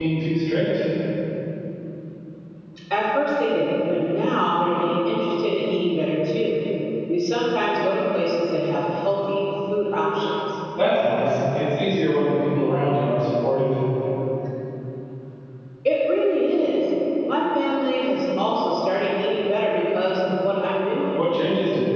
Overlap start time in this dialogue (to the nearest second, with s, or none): none